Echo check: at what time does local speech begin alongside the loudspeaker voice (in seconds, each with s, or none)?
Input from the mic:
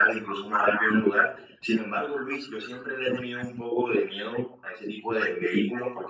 none